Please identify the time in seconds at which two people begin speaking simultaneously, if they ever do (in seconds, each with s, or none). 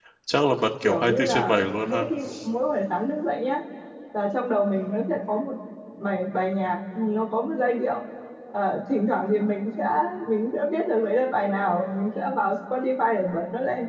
0.8 s